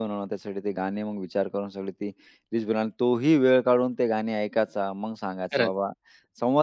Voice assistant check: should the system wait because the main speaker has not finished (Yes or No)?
Yes